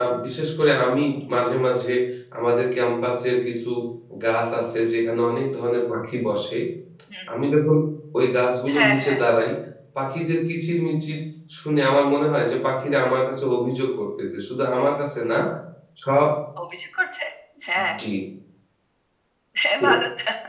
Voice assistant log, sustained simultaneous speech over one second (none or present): none